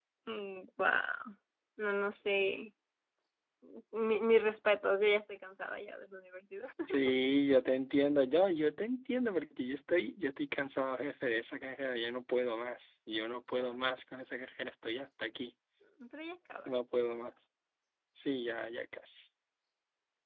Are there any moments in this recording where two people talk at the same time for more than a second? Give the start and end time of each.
none

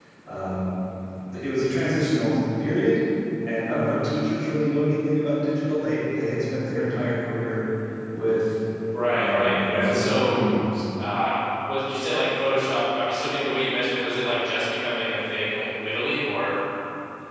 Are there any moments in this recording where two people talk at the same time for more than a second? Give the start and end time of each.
9.1-10.4

